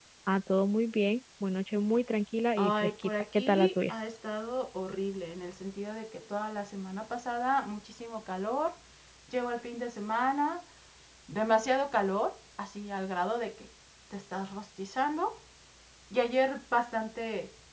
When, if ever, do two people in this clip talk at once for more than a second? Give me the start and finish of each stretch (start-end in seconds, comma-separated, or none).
2.6-3.9